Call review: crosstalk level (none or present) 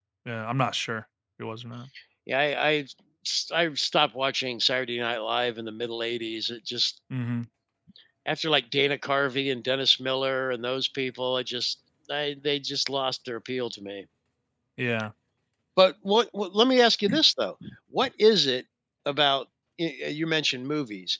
none